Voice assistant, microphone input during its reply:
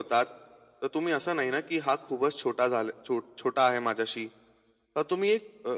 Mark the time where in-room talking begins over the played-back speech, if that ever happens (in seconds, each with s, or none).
none